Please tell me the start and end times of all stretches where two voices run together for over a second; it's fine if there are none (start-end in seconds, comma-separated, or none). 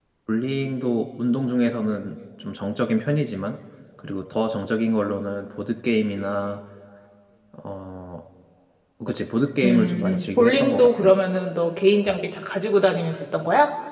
9.6-11.1